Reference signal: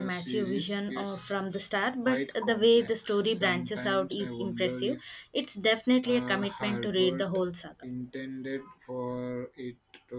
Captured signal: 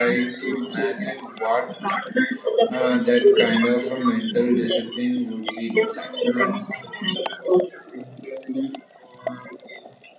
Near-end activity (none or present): present